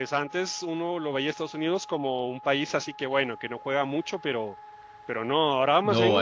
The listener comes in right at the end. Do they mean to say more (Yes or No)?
Yes